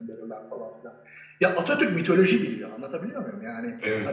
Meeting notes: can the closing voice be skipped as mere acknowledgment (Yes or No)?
Yes